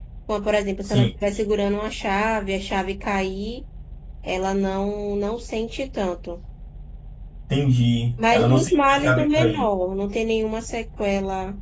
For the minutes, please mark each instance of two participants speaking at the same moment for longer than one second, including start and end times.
8.2-9.6

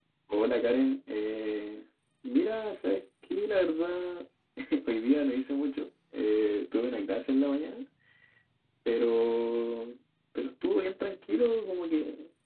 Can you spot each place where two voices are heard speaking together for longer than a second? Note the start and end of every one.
none

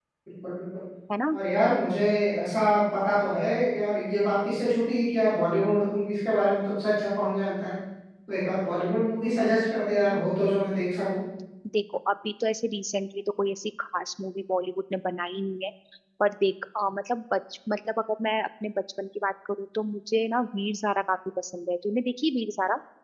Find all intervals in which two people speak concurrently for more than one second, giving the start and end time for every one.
none

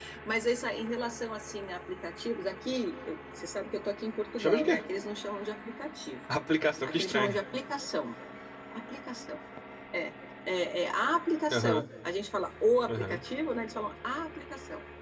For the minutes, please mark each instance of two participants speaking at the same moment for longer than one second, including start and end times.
none

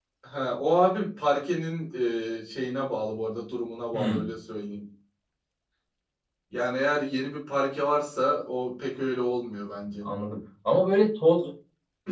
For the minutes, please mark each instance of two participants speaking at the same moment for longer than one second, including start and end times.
none

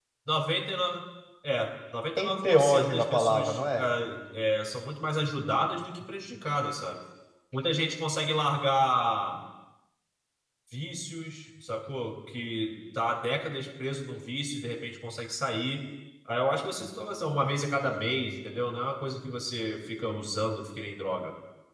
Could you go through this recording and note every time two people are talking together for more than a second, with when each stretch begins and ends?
2.2-3.9

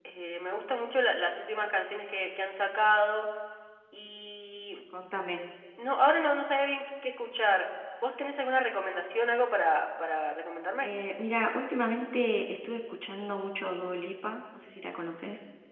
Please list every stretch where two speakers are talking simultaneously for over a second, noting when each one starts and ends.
none

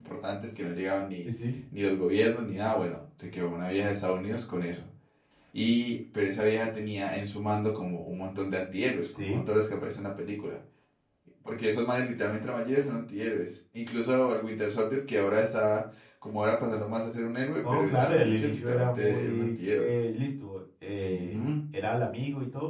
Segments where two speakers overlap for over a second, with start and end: 17.6-19.9

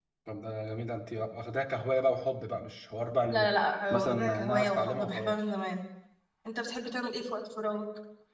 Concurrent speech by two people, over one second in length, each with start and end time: 3.9-5.4

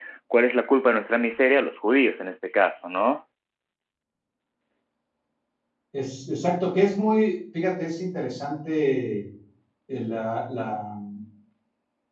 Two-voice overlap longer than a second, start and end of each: none

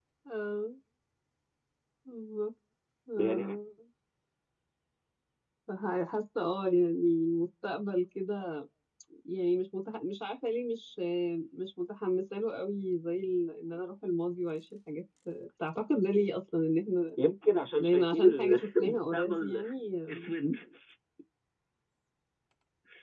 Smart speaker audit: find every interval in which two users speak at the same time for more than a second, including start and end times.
17.8-19.6

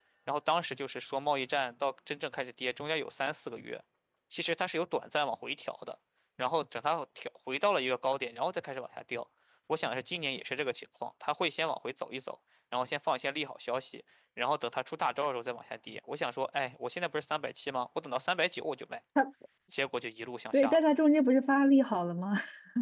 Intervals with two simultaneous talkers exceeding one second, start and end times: none

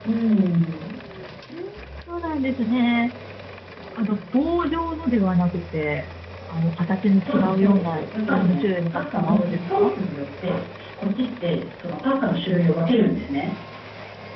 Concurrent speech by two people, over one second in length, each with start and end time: 7.2-9.9

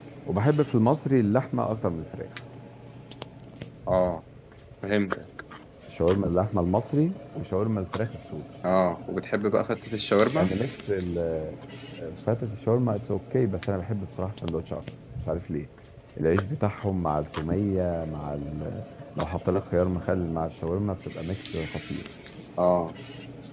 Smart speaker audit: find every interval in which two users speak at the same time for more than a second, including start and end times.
none

